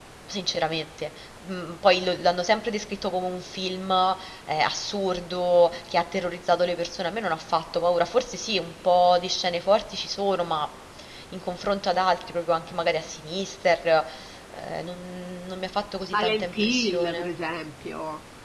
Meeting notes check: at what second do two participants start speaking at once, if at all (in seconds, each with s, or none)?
16.0 s